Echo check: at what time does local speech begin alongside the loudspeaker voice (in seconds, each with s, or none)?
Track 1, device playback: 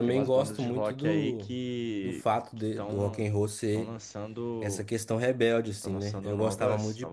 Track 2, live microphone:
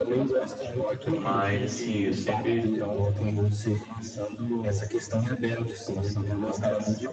1.1 s